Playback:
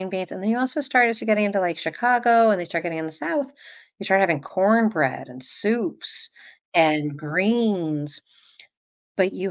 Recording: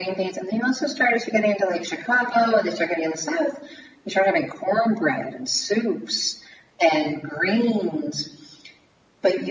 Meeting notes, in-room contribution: none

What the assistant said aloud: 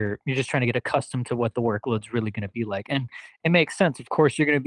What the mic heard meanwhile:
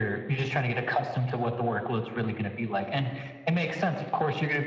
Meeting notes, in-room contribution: none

